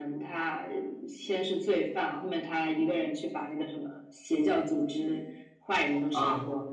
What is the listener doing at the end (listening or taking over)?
taking over